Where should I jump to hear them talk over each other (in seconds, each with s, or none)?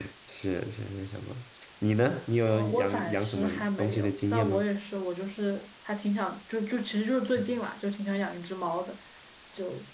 2.5 s